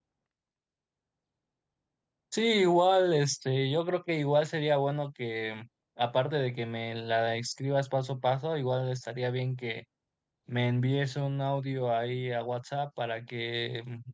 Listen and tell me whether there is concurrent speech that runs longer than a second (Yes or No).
No